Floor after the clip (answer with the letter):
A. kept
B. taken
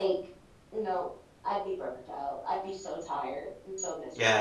B